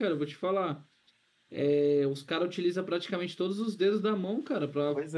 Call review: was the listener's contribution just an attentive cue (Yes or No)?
No